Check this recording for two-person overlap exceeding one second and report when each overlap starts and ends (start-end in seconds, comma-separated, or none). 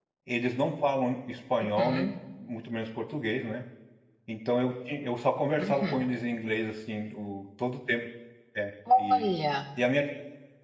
none